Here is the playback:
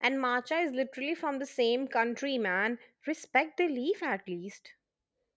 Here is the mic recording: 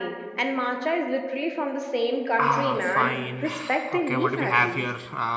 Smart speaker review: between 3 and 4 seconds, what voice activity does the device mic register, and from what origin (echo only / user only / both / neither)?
both